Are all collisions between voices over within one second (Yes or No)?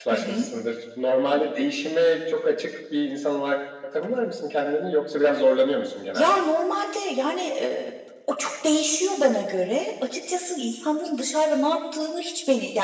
Yes